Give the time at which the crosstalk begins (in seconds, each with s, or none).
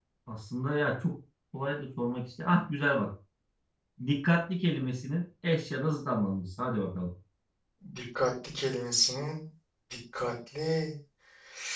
none